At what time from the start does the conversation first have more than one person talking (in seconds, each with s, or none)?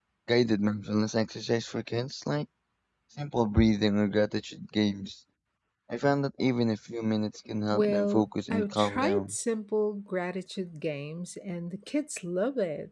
7.7 s